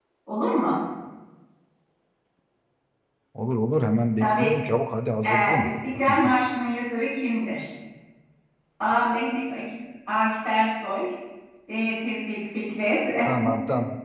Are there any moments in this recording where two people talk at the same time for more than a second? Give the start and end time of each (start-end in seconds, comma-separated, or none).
none